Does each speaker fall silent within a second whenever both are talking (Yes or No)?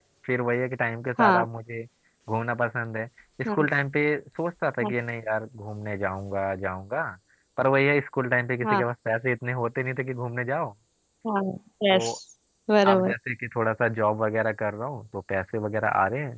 Yes